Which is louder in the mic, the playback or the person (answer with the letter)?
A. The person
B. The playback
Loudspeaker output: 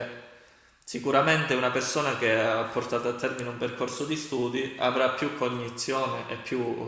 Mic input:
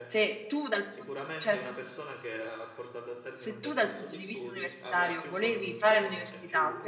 A